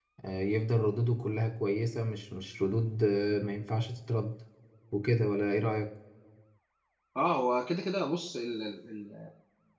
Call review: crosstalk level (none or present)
none